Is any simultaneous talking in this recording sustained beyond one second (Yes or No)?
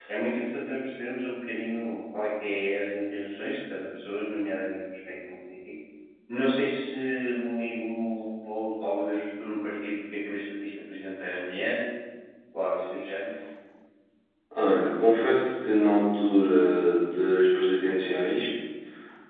No